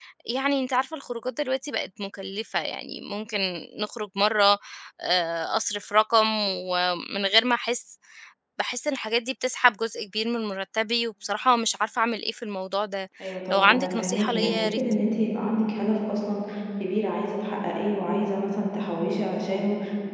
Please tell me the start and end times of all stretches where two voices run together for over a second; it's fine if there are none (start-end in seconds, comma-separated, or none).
13.5-14.8